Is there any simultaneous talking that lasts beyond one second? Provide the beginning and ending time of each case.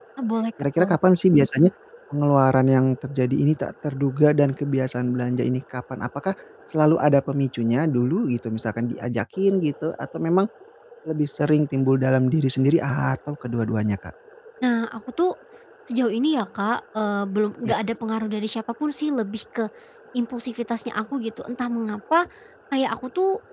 none

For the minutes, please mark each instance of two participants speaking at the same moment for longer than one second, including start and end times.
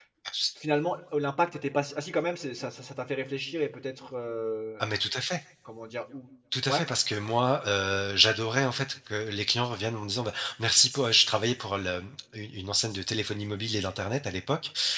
none

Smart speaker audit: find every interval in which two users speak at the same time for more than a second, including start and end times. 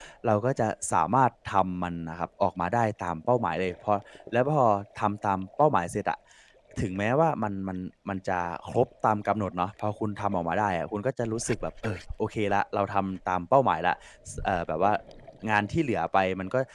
none

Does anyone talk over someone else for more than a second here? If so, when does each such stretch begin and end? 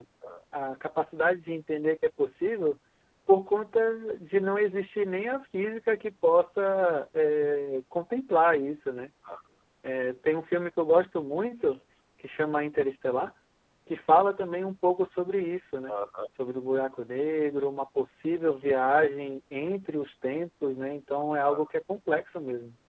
none

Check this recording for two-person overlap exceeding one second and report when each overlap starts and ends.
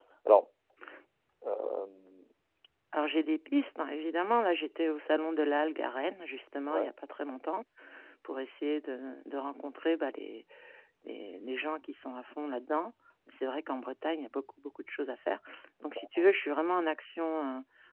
none

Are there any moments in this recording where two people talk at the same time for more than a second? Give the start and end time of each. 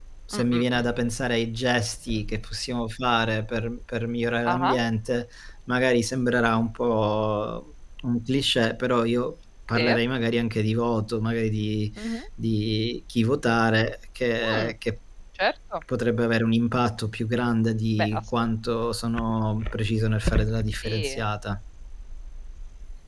none

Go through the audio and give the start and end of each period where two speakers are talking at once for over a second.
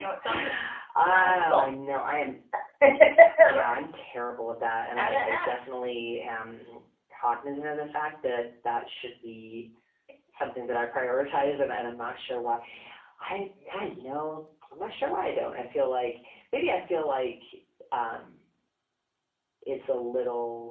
none

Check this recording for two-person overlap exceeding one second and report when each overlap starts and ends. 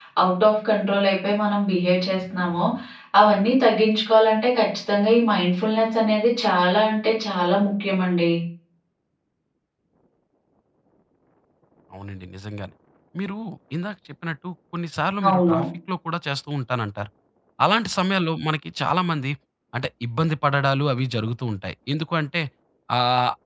none

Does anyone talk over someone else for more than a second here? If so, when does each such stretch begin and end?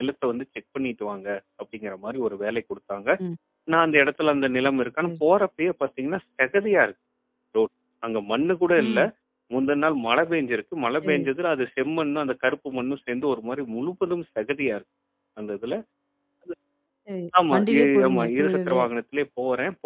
17.5-18.8

